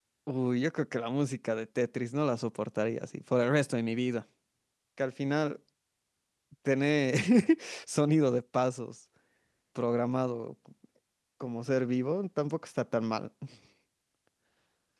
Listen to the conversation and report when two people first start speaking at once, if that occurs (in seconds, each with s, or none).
none